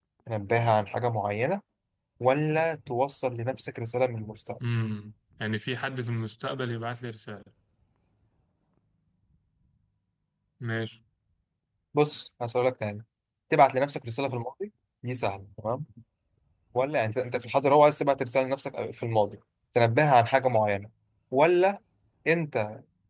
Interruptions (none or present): none